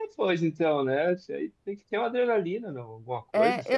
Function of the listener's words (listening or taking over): taking over